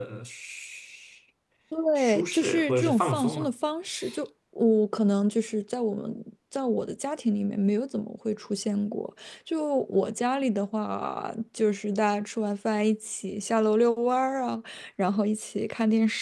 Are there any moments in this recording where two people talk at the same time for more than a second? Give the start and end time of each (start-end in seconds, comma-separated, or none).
2.0-3.5